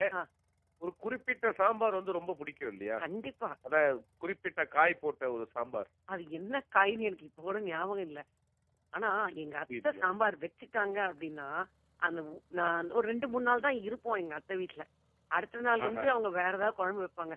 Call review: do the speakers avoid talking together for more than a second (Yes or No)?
Yes